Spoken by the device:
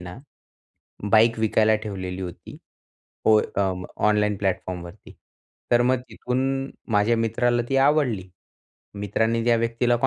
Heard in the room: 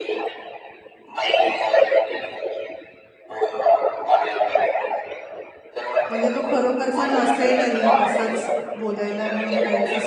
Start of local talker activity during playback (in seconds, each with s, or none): 6.1 s